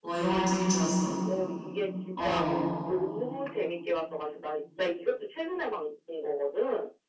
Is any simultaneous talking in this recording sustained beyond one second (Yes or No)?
No